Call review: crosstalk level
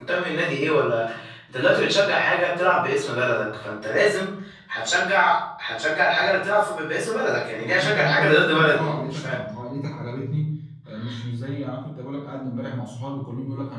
present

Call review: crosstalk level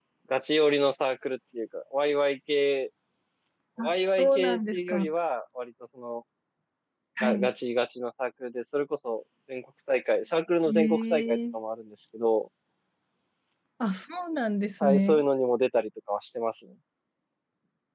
present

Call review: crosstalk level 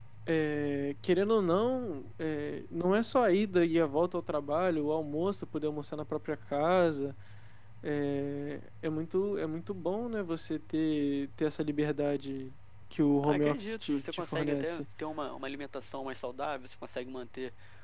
present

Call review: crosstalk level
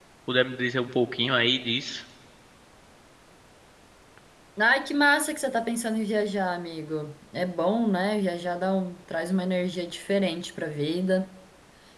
none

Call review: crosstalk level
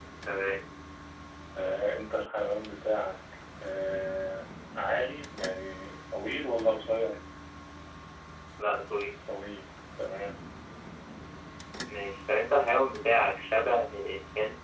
none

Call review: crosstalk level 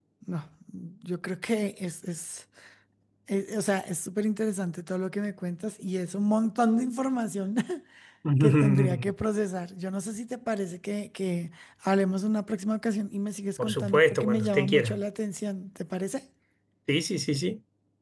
present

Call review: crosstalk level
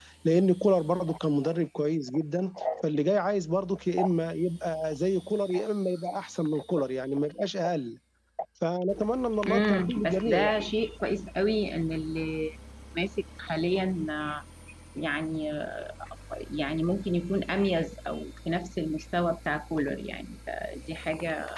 present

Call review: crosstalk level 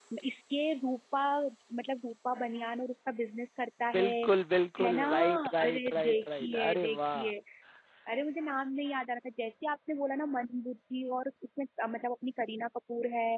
present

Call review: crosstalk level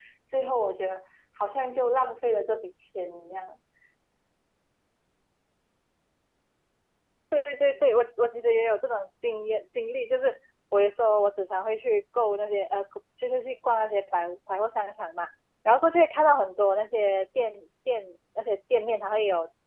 none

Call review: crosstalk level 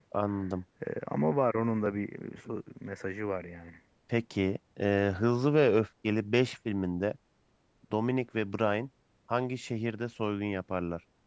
none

